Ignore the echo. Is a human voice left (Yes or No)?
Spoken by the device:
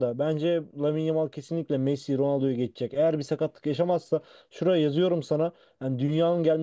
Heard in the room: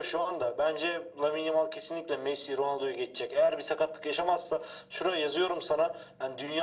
No